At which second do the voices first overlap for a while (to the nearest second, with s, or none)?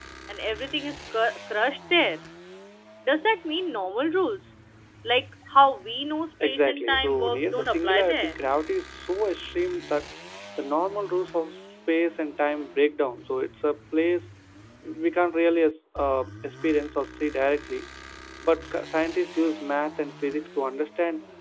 6 s